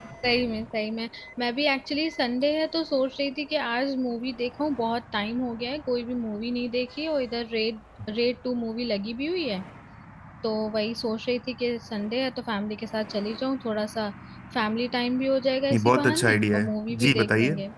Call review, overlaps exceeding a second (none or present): present